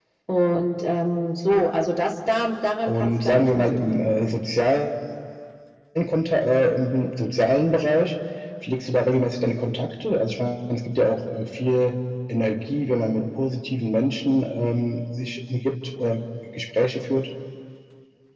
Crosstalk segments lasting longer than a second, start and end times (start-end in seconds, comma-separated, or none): 2.9-4.1